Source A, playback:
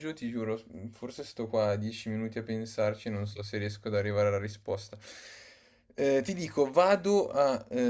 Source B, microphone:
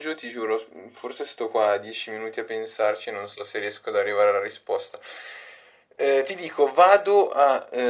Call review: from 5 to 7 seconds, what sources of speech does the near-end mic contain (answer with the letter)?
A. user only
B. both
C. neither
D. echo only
D